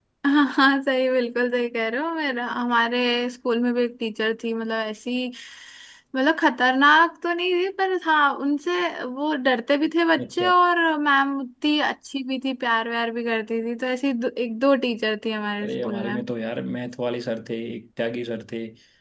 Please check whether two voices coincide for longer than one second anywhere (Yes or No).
No